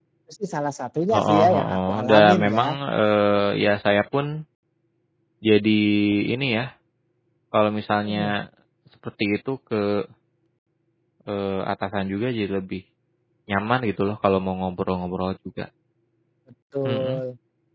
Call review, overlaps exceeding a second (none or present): present